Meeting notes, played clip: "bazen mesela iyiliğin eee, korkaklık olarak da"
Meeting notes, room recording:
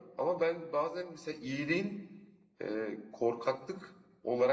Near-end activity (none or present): none